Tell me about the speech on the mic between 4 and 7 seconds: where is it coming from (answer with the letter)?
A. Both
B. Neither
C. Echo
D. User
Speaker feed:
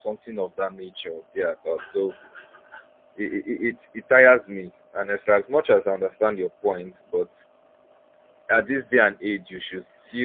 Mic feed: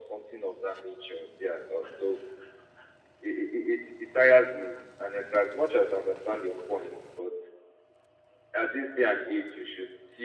C